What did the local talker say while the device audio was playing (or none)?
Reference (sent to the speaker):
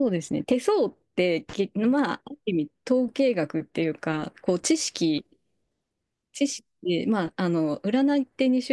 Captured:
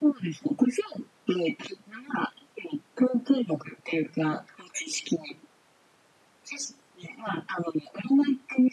none